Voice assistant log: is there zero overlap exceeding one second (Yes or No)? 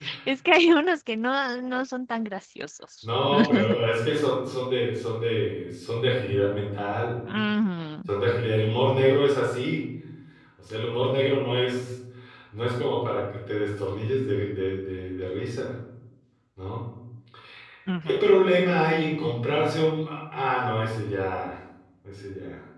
Yes